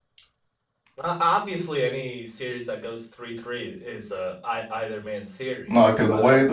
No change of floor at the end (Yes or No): No